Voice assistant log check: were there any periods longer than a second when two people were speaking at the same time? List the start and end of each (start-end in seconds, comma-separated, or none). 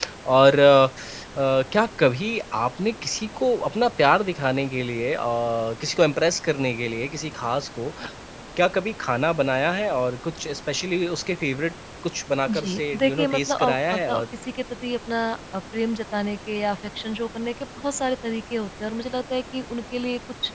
12.5-14.2